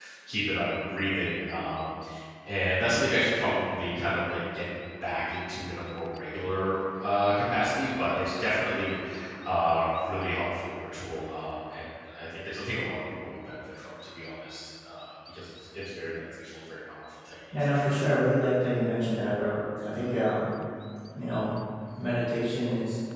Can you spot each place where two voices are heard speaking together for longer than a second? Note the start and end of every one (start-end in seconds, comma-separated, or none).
none